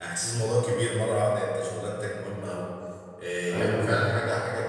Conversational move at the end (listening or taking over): listening